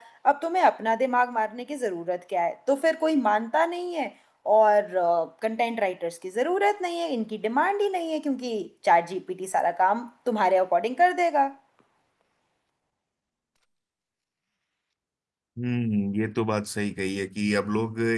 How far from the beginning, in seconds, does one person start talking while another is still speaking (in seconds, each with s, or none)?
none